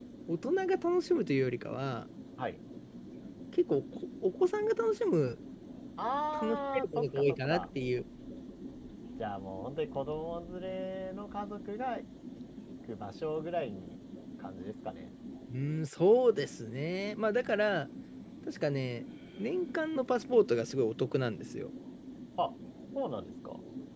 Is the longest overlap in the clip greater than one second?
Yes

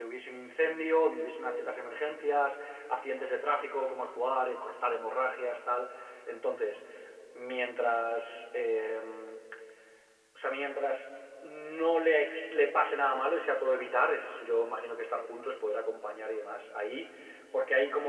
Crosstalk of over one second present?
No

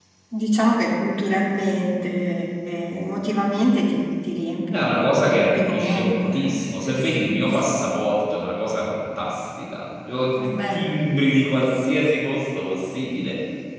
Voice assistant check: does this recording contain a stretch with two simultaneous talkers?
Yes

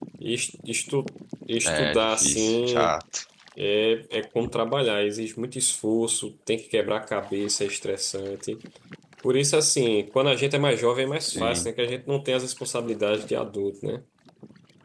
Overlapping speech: Yes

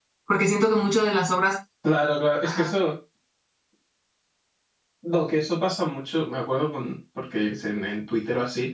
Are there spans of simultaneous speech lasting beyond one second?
No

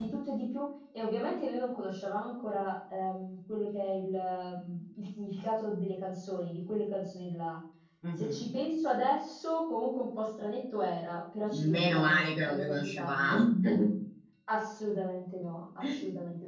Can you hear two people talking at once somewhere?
Yes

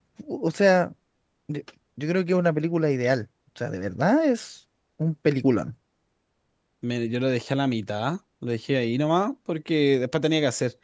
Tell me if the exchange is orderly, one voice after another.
Yes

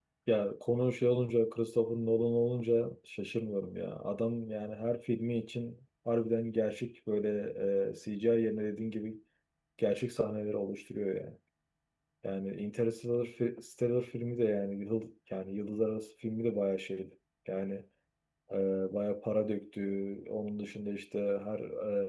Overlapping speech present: No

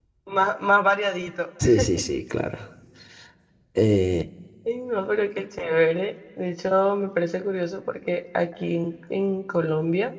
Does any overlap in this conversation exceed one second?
No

